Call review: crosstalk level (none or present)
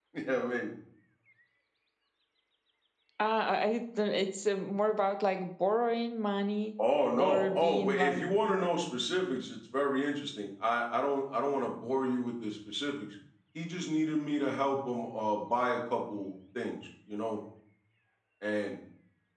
present